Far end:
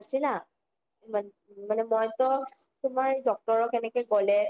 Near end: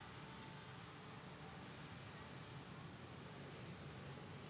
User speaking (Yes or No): No